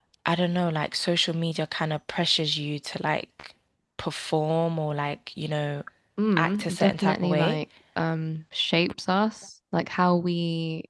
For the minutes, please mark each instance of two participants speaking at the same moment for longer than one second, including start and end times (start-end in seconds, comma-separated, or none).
6.4-7.6